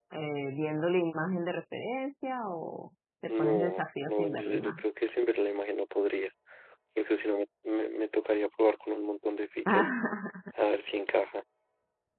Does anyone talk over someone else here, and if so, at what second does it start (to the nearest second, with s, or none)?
3 s